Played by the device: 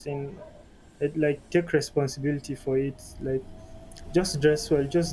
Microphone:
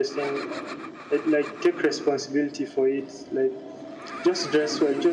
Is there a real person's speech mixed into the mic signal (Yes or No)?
No